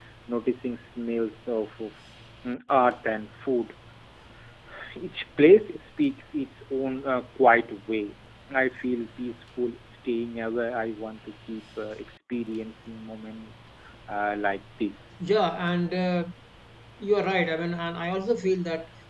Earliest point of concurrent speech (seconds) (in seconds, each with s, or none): none